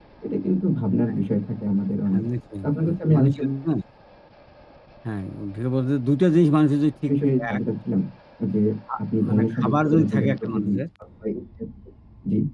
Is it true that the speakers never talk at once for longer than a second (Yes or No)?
No